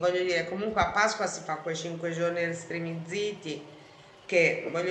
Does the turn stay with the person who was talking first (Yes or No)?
Yes